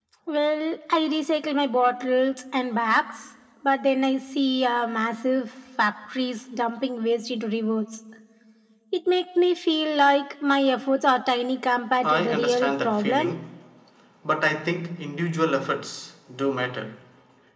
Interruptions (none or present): present